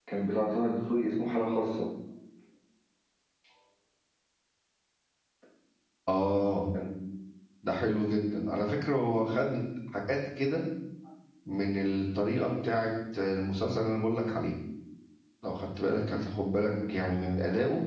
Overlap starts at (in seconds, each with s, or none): none